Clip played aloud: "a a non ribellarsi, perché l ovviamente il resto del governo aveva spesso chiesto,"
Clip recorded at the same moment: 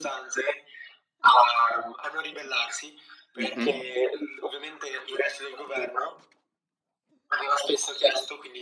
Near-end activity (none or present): present